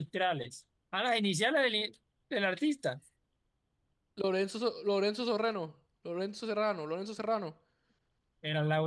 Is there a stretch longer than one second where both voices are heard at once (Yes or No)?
No